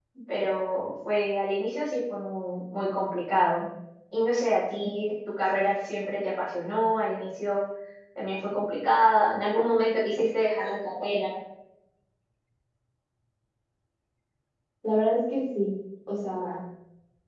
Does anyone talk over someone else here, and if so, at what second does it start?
none

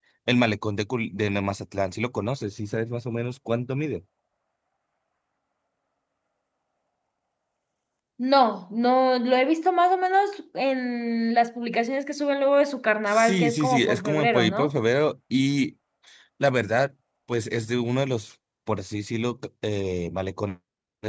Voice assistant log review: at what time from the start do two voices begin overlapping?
13.1 s

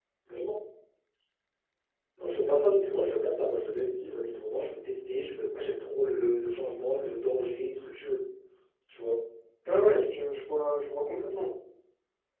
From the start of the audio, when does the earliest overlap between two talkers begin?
none

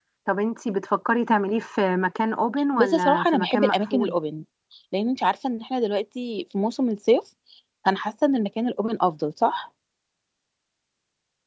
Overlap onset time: 2.8 s

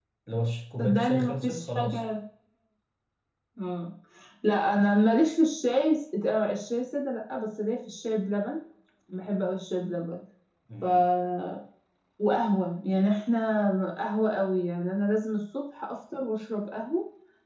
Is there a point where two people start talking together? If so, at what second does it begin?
0.8 s

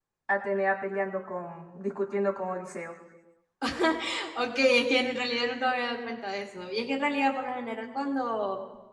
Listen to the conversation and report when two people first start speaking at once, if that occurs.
none

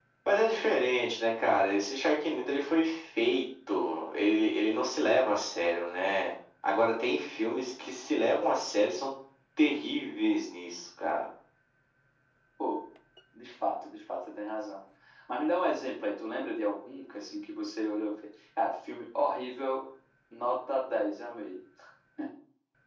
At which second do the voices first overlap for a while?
none

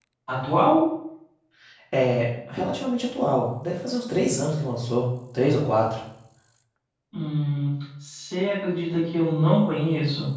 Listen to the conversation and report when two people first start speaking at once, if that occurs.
none

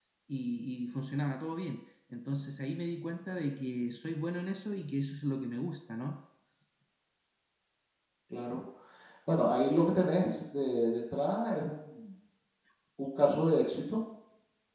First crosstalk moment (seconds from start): none

